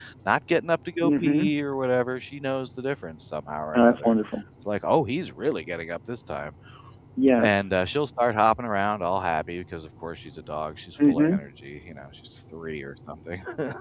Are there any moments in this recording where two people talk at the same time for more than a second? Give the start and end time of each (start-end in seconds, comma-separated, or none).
none